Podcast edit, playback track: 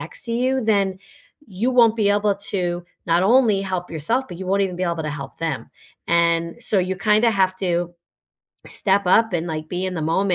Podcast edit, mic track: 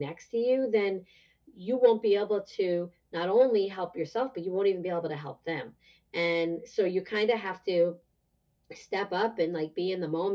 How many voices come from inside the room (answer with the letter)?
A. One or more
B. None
B